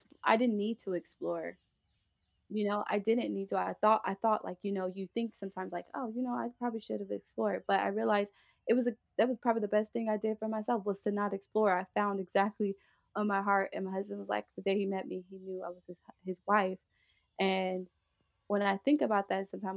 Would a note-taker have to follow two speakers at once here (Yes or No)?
No